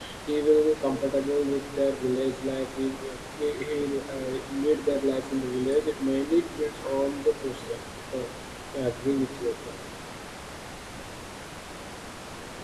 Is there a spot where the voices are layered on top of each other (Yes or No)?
No